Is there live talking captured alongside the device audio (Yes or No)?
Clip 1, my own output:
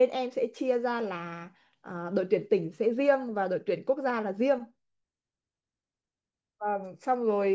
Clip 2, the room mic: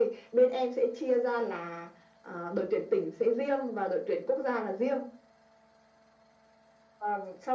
No